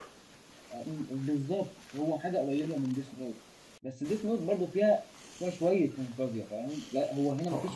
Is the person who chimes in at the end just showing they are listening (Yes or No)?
Yes